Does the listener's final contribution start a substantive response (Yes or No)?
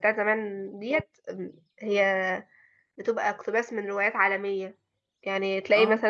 No